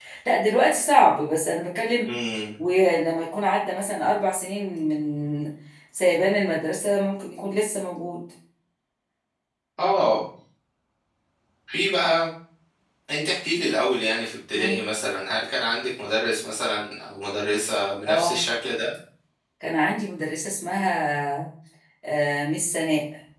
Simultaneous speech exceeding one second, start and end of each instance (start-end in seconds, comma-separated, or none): none